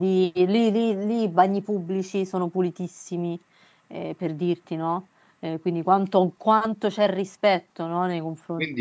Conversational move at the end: taking over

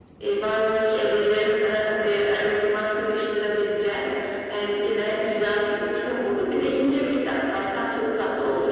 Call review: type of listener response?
taking over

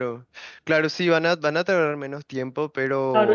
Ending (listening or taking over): taking over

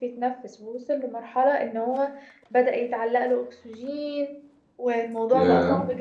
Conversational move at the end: listening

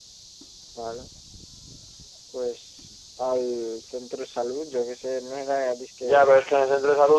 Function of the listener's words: taking over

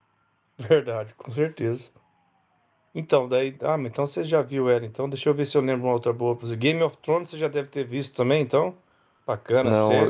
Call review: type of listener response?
taking over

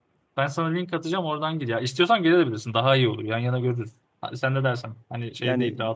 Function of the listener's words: taking over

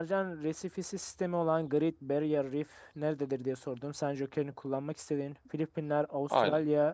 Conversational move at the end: listening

